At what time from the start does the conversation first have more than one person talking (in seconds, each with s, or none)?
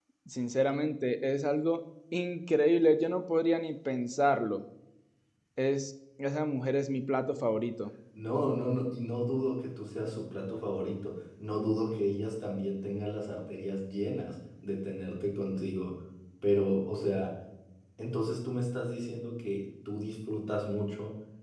none